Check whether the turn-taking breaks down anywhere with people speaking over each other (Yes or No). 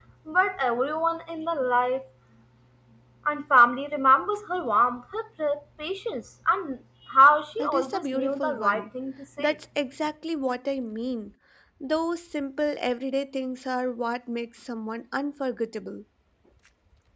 Yes